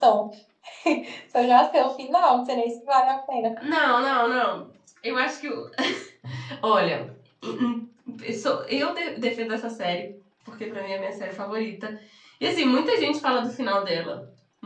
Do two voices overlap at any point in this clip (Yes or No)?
No